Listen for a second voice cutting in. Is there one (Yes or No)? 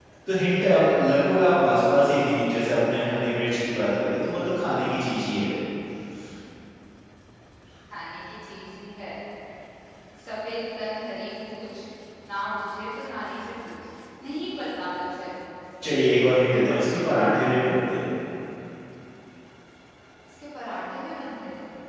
No